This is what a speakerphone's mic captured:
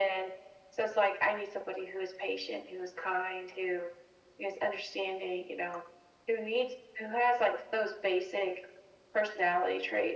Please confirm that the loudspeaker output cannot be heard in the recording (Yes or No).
No